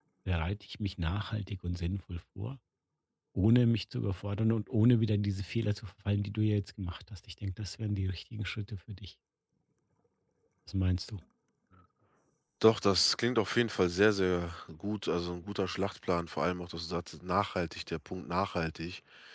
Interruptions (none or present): none